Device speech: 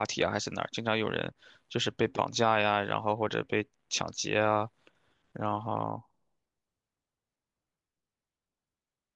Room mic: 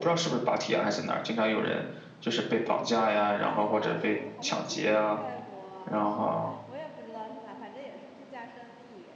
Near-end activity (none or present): present